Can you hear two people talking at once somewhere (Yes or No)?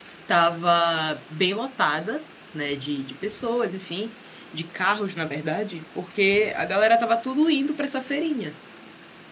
No